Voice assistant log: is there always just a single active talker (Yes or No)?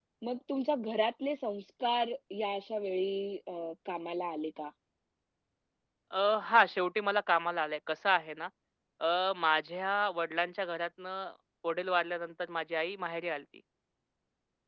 Yes